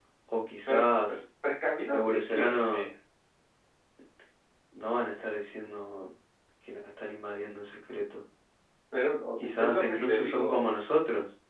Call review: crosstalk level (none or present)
present